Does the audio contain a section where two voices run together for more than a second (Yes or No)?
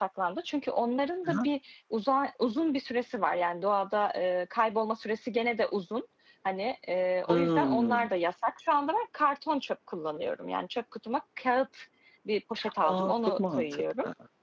Yes